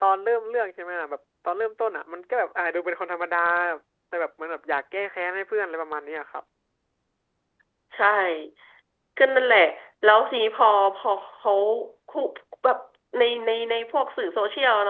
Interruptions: none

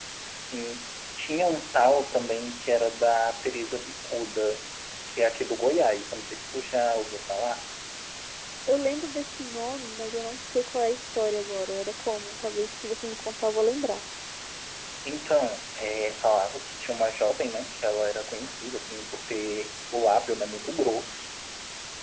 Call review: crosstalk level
none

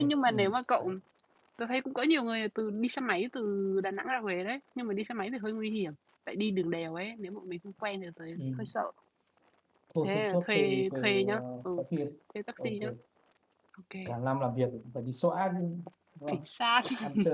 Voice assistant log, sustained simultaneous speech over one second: present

